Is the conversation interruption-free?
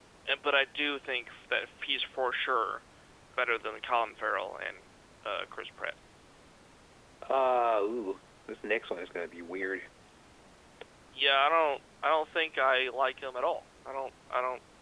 Yes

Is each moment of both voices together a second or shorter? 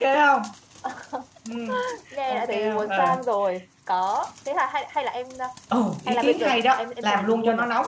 No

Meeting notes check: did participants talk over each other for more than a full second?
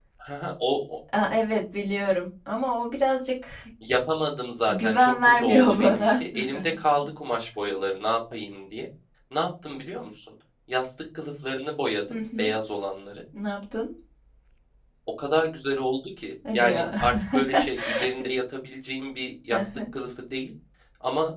Yes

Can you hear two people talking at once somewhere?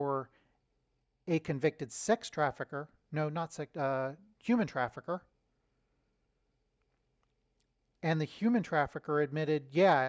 No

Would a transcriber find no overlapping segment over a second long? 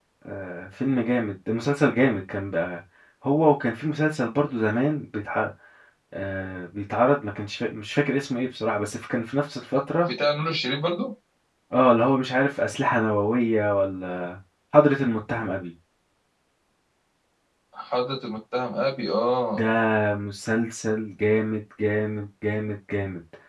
Yes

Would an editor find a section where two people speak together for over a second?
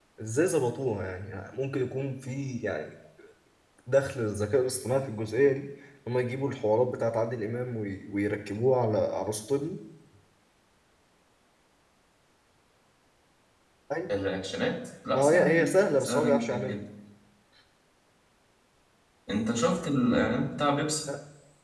Yes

